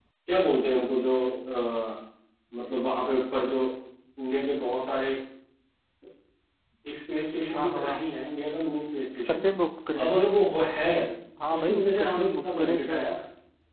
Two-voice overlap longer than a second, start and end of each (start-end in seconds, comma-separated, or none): 11.6-13.1